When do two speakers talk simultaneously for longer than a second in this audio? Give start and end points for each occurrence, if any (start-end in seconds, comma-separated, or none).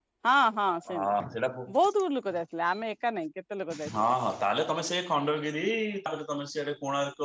none